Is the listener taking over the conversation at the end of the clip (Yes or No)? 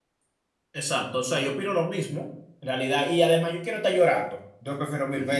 No